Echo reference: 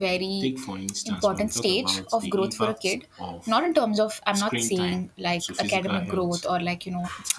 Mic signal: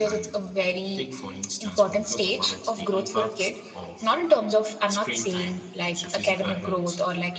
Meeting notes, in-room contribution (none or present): none